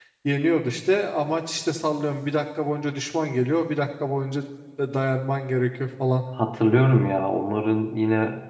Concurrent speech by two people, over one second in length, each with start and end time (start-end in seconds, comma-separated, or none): none